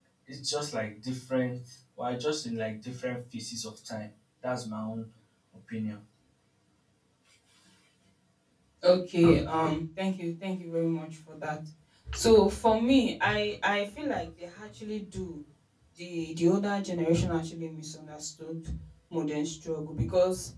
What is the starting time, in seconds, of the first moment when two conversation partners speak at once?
none

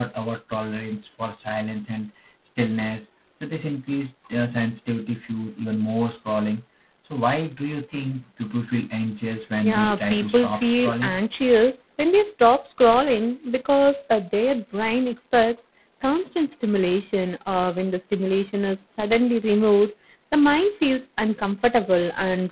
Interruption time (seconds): 9.6 s

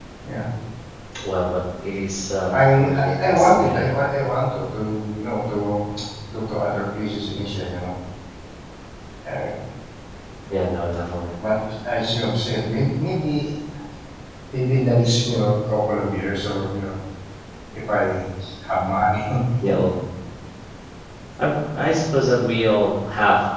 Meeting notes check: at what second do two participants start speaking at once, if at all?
2.5 s

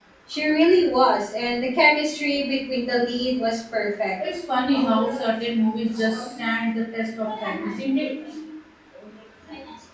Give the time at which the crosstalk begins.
none

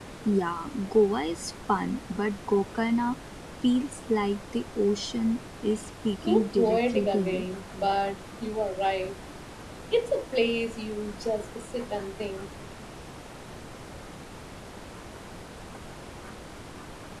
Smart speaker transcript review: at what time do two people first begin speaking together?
6.2 s

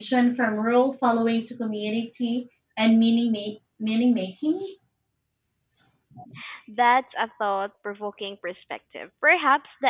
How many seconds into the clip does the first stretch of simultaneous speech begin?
none

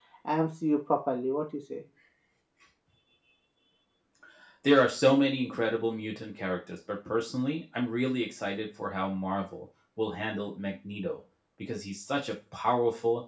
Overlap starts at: none

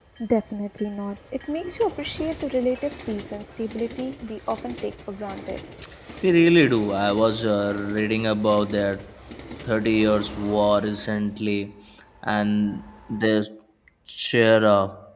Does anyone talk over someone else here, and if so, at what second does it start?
none

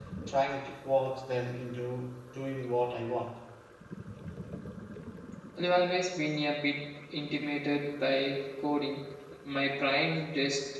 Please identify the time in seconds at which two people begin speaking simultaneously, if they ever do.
none

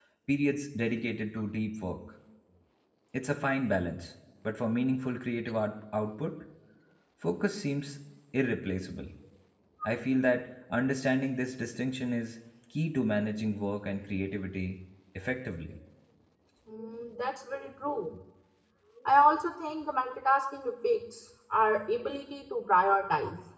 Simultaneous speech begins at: none

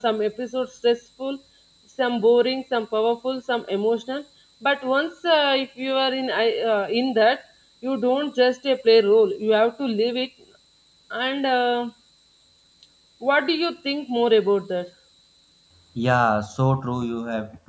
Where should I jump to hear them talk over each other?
none

